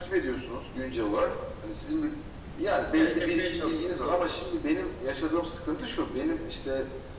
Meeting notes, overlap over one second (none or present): present